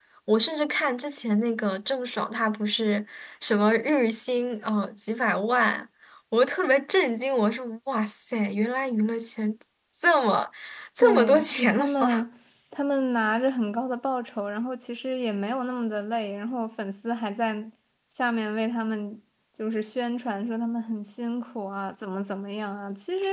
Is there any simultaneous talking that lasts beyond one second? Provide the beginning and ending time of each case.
11.0-12.2

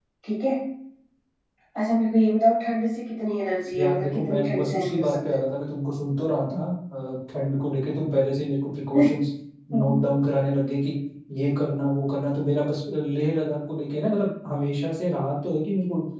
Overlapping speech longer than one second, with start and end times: 3.8-5.4

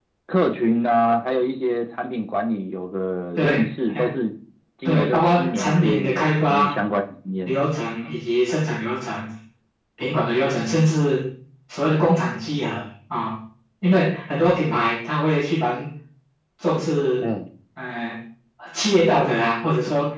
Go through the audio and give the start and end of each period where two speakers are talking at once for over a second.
4.8-6.7

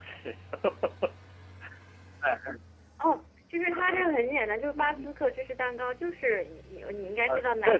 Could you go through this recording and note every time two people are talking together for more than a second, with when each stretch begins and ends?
none

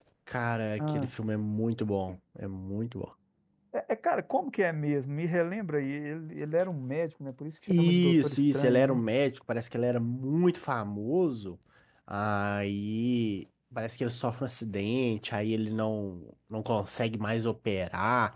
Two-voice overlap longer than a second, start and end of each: 7.7-9.0

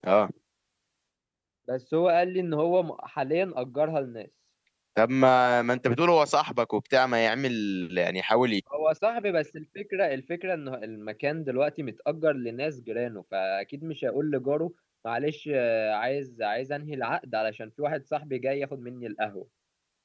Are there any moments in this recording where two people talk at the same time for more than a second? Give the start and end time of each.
none

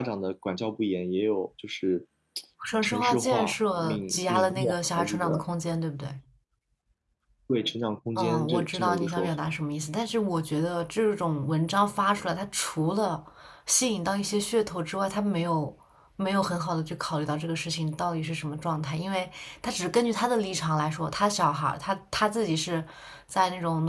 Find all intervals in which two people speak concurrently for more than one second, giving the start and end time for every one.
2.8-5.4, 8.2-9.4

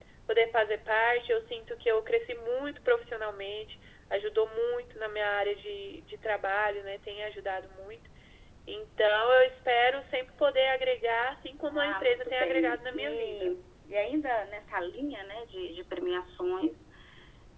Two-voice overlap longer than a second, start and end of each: 11.7-13.5

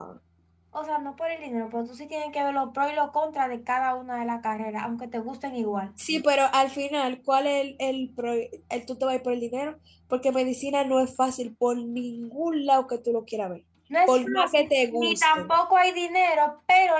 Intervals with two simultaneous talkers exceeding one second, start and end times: 14.1-15.5

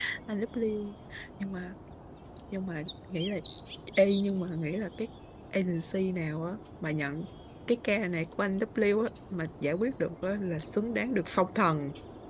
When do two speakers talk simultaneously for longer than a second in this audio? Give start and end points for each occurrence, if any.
none

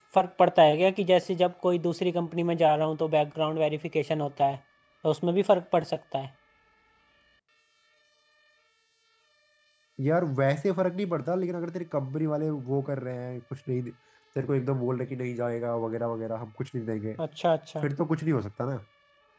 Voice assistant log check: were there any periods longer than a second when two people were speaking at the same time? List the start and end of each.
none

